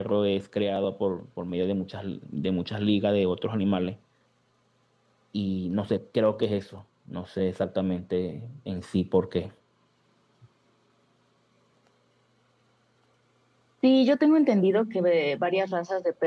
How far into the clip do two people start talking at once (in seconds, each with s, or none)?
none